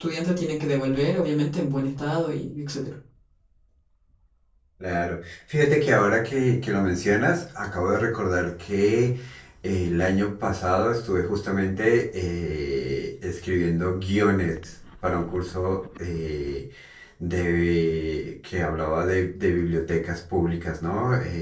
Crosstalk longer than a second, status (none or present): none